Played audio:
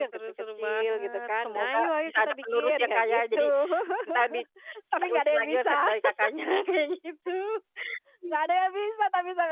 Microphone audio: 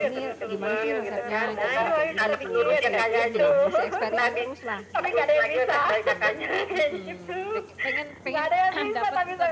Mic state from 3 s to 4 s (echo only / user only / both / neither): both